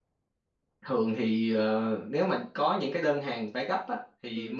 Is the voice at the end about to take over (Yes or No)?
No